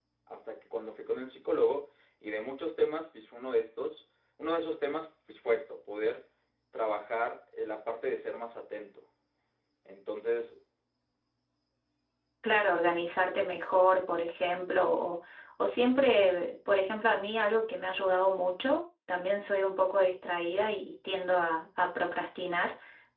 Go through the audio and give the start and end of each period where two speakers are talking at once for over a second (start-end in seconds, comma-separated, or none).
none